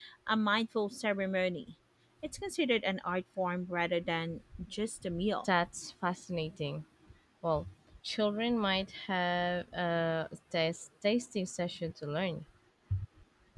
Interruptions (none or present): none